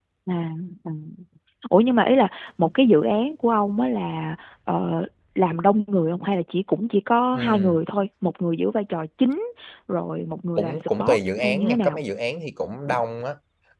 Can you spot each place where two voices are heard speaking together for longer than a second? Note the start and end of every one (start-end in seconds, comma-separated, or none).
10.6-12.0